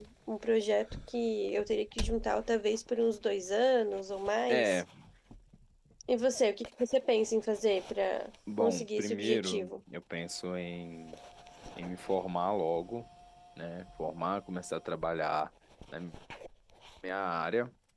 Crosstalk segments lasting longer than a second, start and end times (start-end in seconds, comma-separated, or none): 8.6-9.8